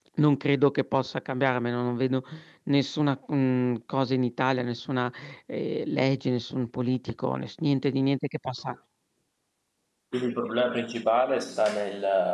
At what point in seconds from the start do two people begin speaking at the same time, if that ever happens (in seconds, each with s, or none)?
none